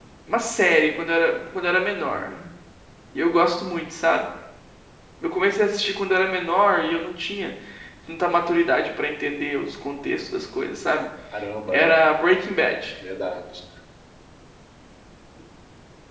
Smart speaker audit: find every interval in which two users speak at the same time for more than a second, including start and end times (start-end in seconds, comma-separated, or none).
none